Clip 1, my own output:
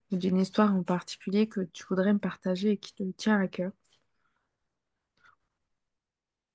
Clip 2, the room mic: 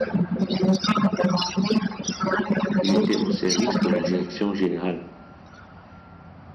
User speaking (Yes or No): Yes